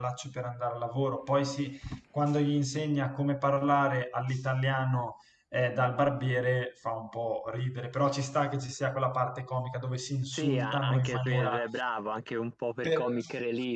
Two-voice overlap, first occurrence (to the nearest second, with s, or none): 10 s